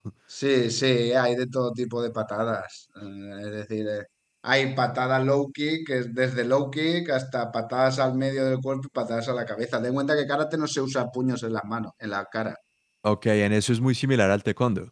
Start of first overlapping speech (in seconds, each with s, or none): none